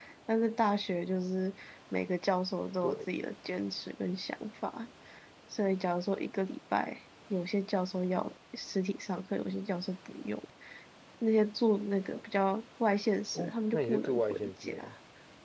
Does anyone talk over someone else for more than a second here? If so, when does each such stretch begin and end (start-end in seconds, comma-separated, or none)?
13.3-14.9